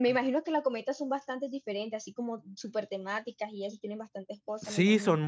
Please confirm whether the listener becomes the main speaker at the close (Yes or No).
Yes